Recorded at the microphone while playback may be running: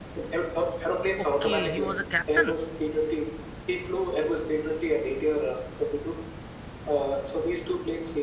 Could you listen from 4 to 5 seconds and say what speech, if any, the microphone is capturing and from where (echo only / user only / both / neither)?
echo only